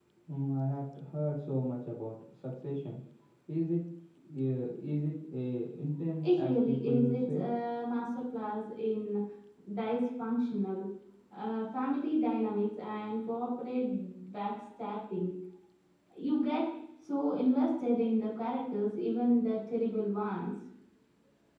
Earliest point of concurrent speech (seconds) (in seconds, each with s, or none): 6.2 s